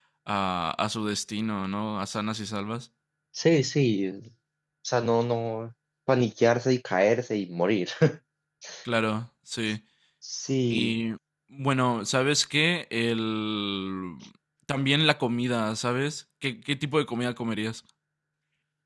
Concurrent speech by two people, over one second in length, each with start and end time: none

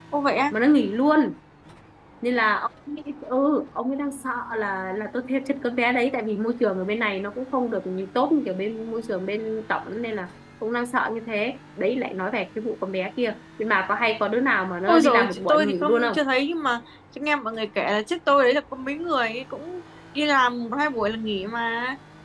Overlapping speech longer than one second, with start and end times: 14.9-16.2

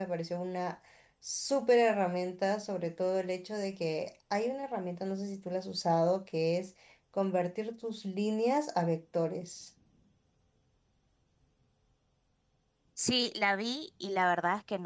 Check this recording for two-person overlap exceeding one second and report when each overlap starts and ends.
none

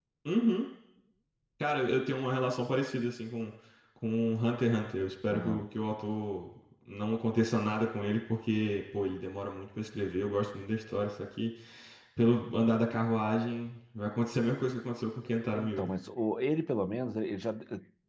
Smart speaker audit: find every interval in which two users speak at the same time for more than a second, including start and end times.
none

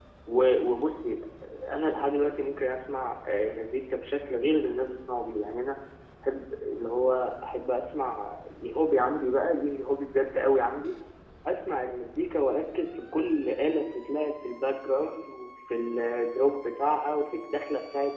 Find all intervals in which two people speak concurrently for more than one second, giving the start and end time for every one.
none

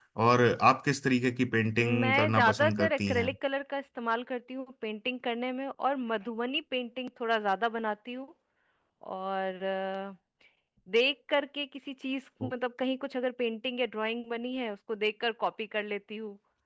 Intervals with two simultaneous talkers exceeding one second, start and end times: 1.8-3.3

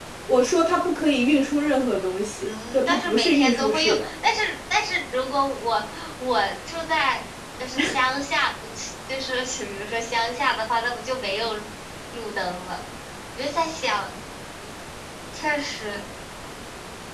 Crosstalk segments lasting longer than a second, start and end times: 2.4-4.1

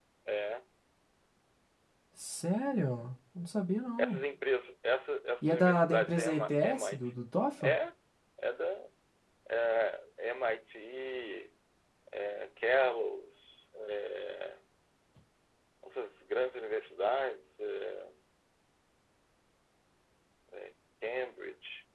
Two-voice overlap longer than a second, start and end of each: 5.4-7.1

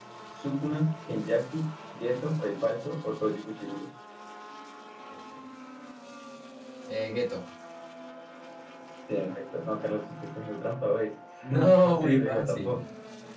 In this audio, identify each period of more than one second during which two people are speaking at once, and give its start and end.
11.4-12.8

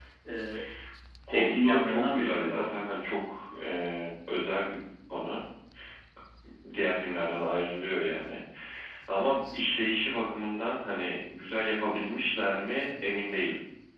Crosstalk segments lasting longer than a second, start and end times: 1.3-2.7

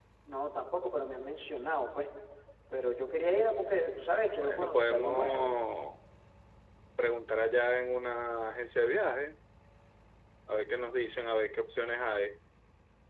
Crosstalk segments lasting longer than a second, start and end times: 4.4-5.6

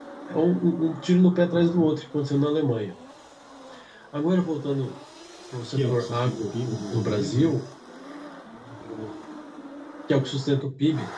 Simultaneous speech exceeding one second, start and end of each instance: 5.7-7.5

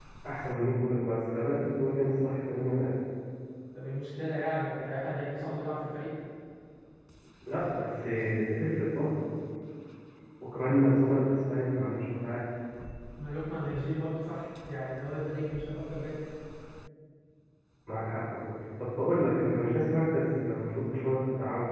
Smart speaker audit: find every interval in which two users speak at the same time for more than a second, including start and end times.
none

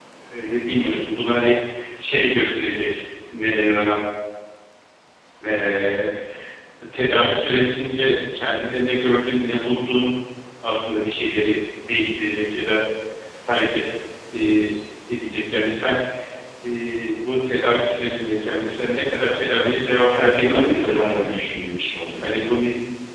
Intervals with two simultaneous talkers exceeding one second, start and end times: 19.9-21.3

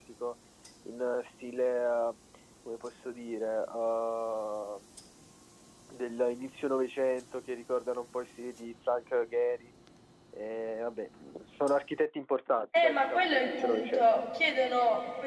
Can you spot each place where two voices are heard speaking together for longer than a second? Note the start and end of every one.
12.8-14.1

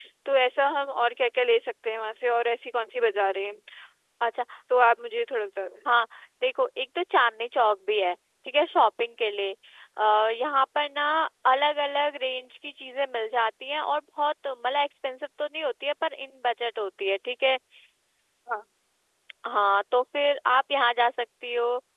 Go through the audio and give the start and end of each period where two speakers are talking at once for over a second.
none

